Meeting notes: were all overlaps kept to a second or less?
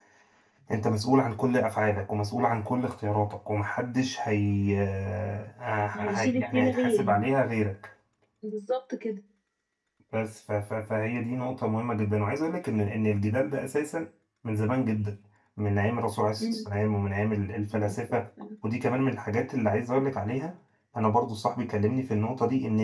No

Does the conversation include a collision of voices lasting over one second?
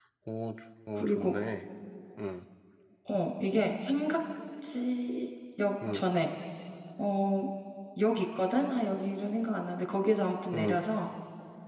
No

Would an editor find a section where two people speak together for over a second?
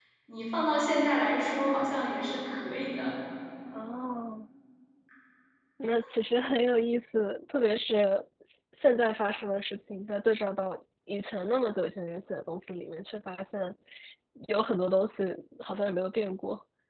No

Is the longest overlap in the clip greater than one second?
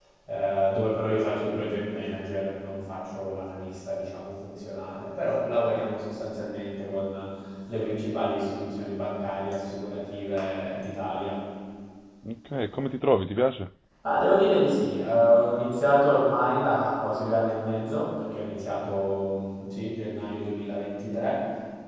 No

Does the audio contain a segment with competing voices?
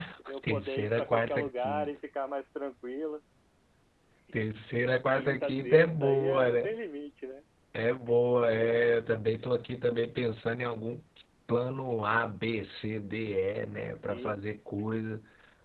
Yes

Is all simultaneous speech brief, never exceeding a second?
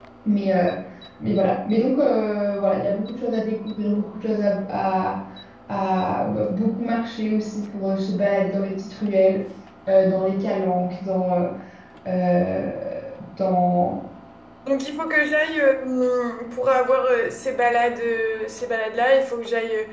Yes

